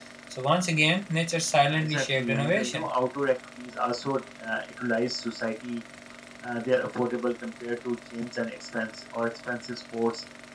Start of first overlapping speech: 1.6 s

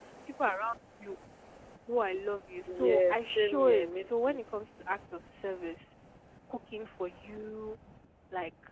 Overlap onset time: 2.7 s

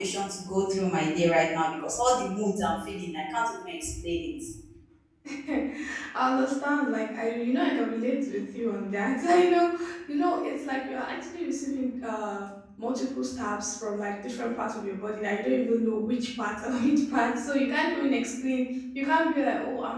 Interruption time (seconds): none

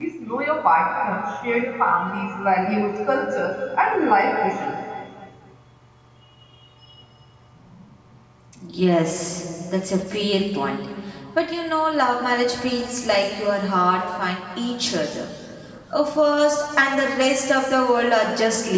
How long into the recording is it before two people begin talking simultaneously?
none

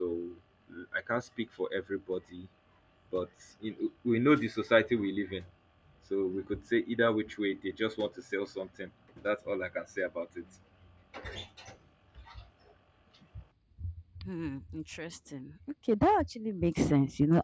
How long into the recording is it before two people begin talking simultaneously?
none

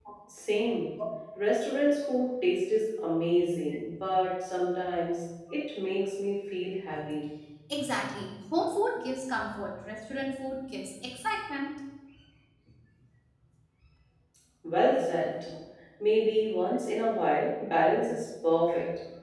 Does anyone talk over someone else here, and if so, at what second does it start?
none

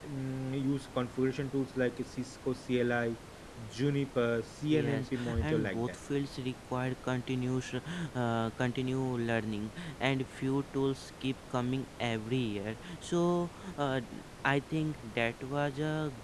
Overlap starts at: 4.7 s

